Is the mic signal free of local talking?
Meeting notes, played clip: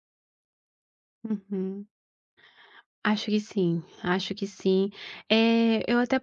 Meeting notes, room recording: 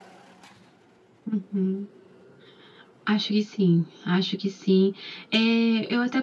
Yes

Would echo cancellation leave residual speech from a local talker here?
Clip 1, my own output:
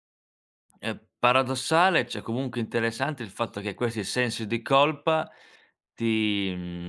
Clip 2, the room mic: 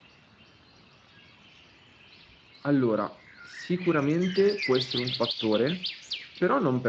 Yes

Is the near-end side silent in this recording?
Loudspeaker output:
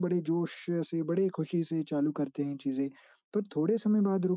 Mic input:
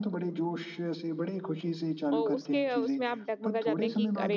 No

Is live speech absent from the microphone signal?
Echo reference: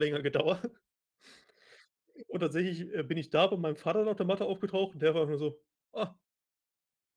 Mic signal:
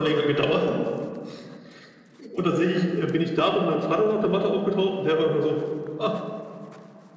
Yes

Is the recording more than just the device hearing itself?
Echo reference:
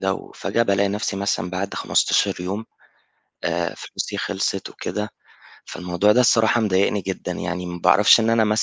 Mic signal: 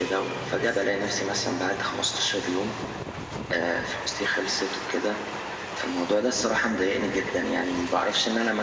No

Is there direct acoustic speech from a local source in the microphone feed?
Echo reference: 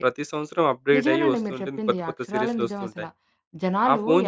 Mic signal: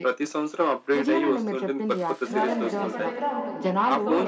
Yes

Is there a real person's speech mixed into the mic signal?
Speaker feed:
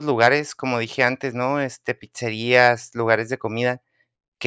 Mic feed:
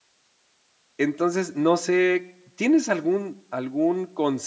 Yes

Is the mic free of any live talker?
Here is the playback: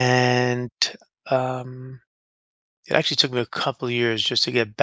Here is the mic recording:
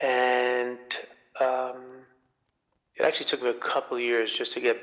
Yes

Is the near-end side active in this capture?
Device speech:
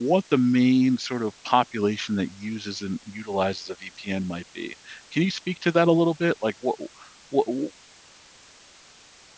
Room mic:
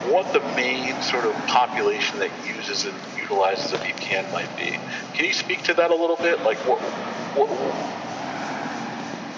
No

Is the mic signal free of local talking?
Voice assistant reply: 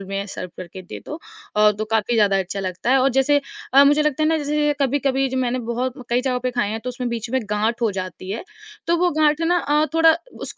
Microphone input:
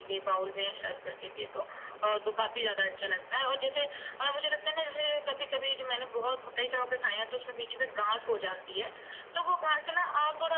Yes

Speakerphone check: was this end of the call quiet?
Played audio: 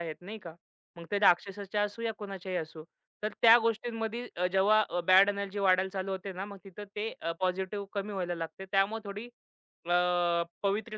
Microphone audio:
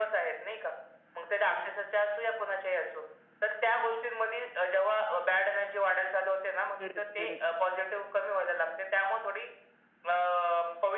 No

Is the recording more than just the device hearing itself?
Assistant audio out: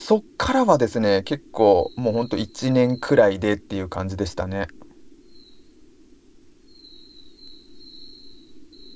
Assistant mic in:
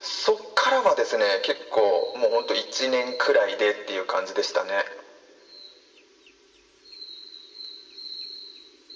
No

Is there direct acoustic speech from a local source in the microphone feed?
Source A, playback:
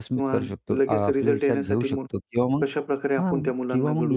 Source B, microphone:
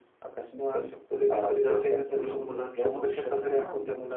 Yes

